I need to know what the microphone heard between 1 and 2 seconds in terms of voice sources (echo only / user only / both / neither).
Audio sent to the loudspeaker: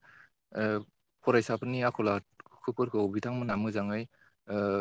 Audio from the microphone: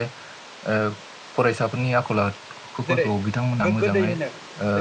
echo only